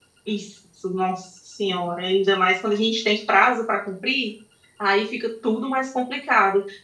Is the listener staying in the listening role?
Yes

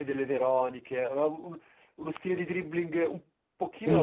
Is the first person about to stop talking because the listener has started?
Yes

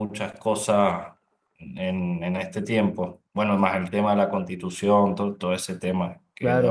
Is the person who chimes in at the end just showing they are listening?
No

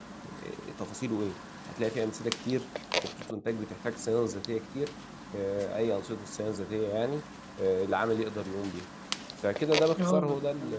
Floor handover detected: Yes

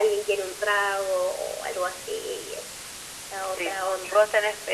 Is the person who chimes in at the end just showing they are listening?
No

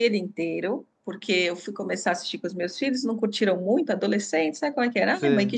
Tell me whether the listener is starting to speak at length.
No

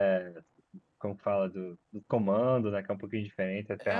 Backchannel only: No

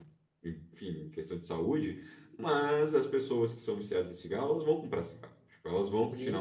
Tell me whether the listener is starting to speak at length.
Yes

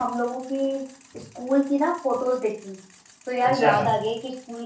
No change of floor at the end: Yes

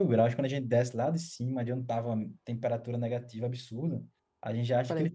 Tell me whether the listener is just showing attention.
Yes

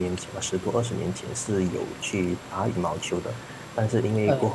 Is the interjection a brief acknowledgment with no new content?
Yes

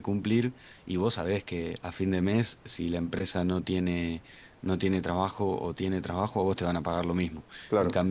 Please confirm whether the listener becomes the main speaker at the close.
No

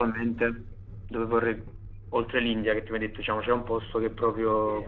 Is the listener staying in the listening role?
Yes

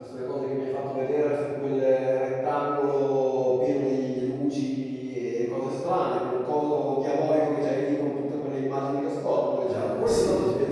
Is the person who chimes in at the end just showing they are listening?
No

